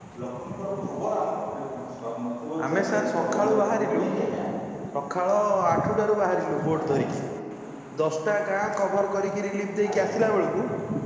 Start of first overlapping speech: 2.7 s

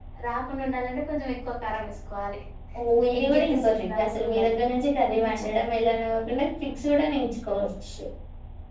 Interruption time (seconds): 3.2 s

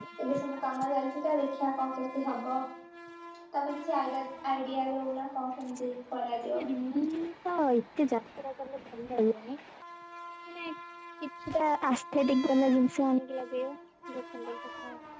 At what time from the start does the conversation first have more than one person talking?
none

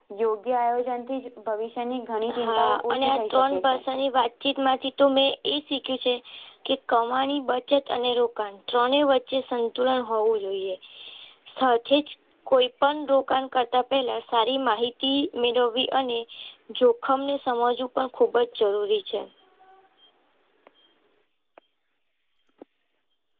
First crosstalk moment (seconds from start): 2.3 s

